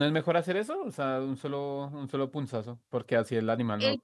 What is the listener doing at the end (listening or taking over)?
taking over